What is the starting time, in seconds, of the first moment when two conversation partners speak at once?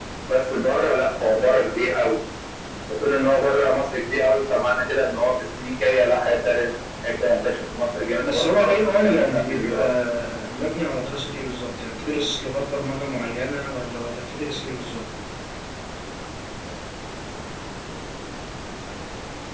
8.2 s

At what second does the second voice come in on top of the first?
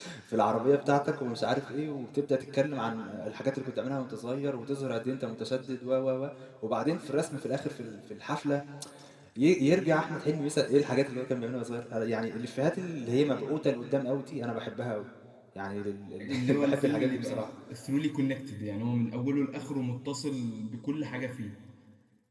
16.2 s

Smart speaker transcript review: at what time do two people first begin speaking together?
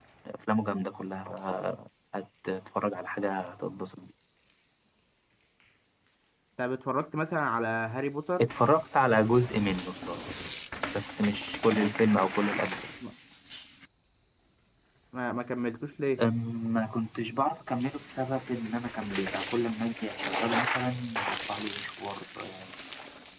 none

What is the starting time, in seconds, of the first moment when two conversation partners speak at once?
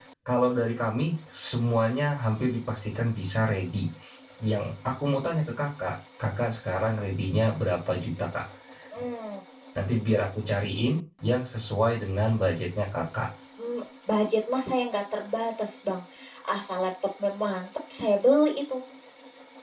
none

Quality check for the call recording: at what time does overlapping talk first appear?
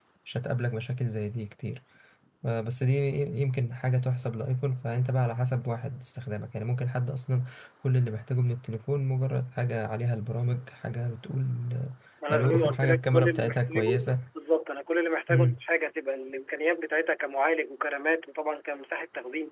12.3 s

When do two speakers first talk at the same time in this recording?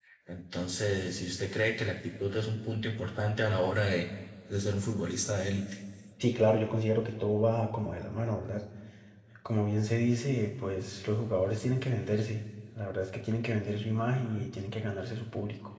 none

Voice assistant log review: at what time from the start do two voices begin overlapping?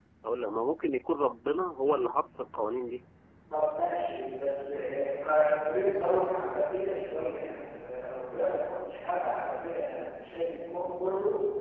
none

